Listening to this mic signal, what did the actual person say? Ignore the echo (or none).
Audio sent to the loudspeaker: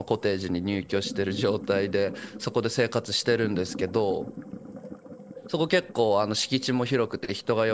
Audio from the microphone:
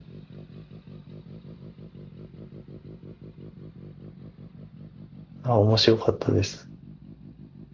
あ、面白かったです。